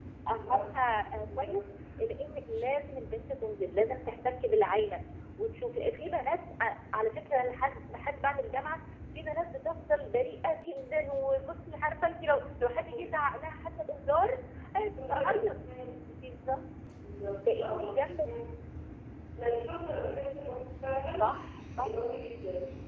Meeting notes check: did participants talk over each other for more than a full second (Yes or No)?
Yes